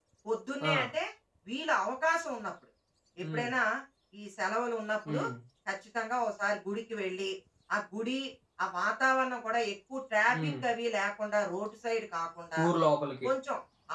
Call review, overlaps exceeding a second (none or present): none